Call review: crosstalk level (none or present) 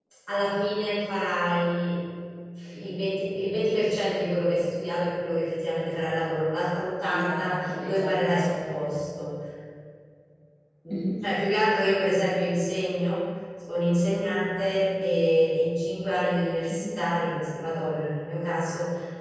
present